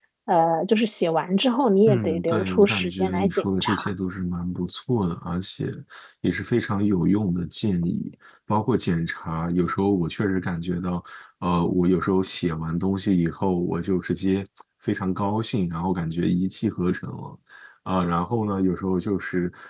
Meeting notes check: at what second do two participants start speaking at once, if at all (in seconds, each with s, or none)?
1.9 s